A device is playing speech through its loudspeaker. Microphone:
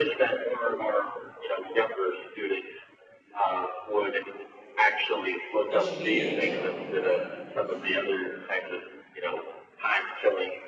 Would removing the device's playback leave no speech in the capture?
No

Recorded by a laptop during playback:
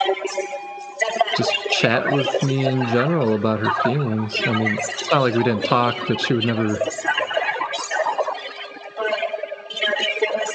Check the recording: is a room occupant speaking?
Yes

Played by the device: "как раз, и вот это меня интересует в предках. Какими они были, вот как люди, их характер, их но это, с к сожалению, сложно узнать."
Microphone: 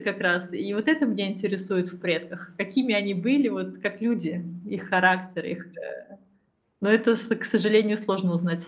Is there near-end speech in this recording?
No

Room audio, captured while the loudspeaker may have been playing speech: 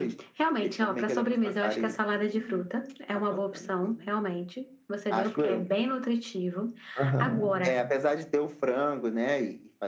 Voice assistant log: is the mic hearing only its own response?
No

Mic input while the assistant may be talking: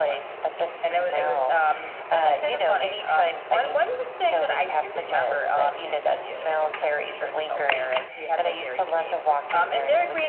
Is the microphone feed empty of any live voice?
Yes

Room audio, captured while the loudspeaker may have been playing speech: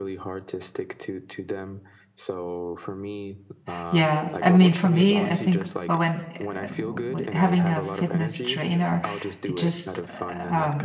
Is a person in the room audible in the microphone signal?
Yes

